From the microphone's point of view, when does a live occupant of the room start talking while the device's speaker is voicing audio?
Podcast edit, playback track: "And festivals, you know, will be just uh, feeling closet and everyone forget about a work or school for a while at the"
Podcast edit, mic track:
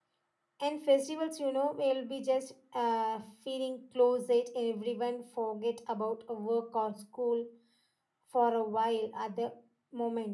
none

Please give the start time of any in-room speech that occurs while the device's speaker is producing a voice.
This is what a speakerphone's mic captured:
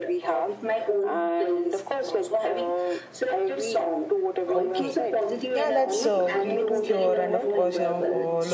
4.5 s

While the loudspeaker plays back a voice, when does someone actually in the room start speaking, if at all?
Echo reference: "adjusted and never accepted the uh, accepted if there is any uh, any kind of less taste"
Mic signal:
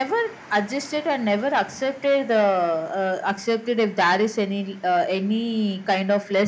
none

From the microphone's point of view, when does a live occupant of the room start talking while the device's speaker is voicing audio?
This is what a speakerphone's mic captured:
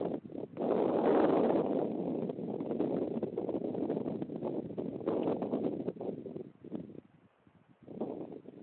none

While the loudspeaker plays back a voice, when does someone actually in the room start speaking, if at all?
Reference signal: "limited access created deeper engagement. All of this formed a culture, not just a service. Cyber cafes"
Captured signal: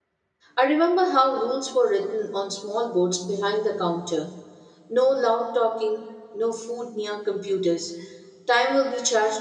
0.6 s

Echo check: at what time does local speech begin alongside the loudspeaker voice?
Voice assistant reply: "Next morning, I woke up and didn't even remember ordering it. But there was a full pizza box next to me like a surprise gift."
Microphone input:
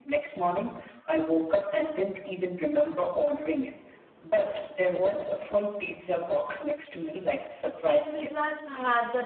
7.7 s

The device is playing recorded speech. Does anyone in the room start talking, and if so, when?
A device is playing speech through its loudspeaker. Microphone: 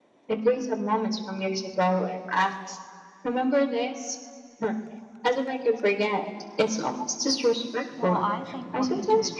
7.9 s

